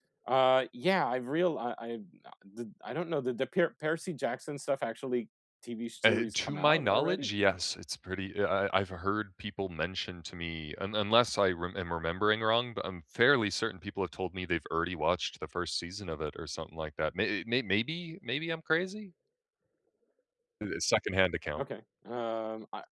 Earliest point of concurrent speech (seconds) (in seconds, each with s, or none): 6.0 s